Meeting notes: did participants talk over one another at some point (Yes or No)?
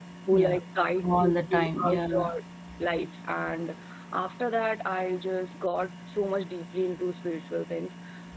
Yes